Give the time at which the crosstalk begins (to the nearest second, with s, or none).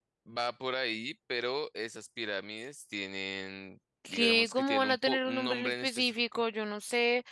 4 s